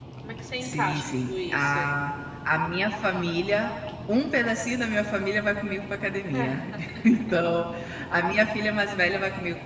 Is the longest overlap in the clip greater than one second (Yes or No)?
Yes